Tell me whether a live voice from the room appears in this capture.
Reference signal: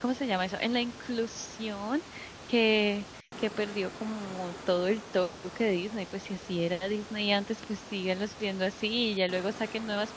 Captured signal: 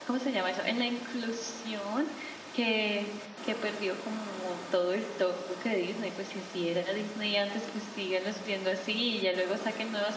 No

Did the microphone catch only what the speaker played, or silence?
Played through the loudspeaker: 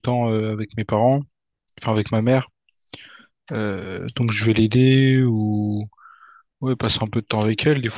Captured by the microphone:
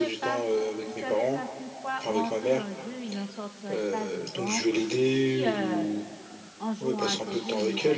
No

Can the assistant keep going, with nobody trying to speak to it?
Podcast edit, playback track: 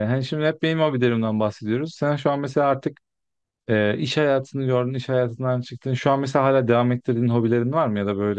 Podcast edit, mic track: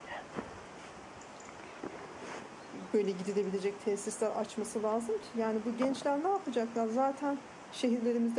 No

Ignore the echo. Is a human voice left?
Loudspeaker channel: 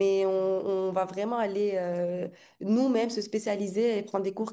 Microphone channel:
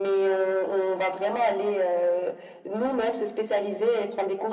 No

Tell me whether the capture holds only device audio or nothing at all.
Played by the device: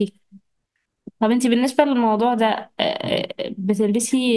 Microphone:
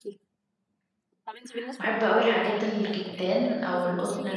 No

